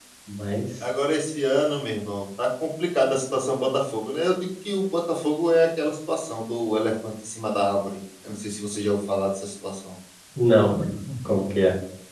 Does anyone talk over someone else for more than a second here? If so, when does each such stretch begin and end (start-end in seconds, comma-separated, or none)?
none